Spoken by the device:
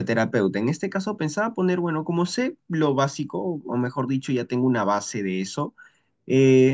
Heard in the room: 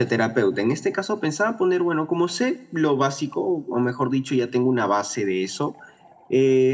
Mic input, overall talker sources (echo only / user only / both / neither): echo only